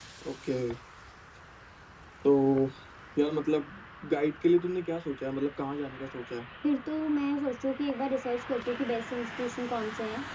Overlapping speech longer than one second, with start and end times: none

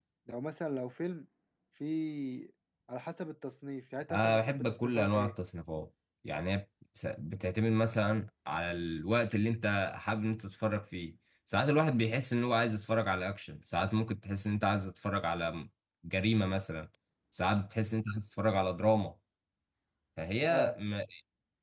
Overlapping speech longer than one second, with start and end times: 4.1-5.3

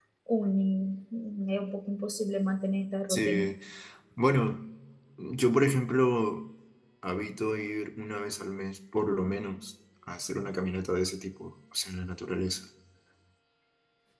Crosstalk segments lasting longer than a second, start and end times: none

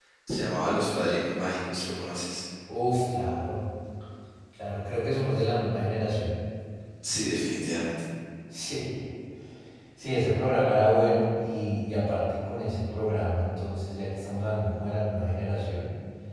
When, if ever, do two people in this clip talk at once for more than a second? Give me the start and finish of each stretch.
none

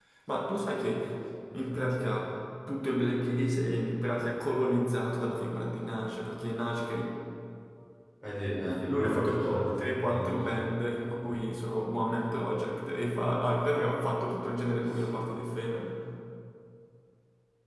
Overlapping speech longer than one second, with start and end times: 8.9-10.4

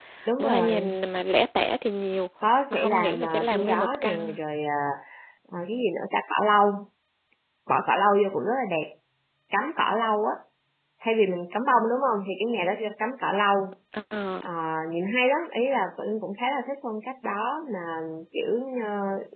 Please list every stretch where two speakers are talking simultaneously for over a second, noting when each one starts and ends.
2.7-4.4

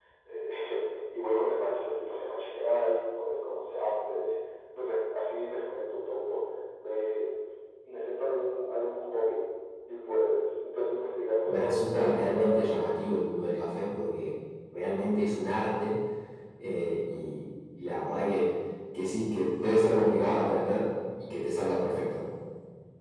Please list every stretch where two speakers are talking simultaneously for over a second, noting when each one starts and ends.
11.5-13.1

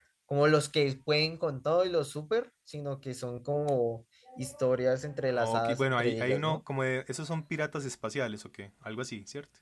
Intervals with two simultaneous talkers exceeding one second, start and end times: 5.4-6.6

